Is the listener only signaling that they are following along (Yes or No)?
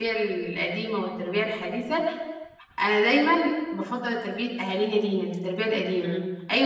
No